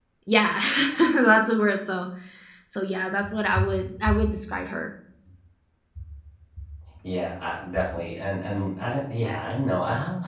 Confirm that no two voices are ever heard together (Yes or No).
Yes